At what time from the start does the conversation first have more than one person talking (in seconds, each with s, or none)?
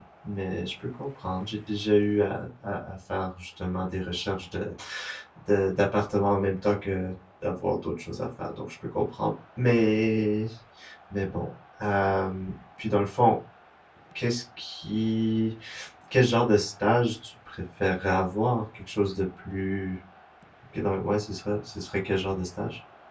none